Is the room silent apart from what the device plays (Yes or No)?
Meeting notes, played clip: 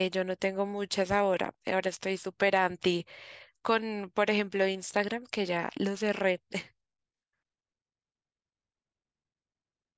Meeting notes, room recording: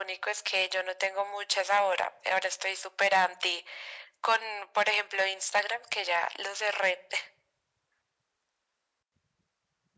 Yes